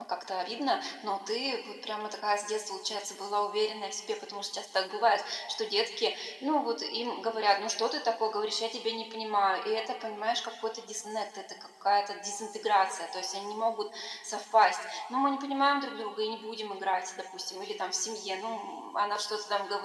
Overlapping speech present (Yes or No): No